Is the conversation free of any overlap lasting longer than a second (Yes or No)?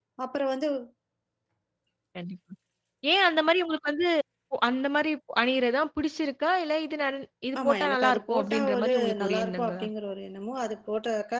No